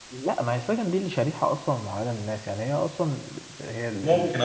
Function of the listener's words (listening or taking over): listening